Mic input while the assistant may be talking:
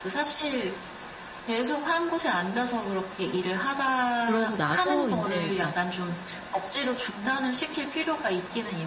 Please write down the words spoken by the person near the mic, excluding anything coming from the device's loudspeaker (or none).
그러고 나서 인제 막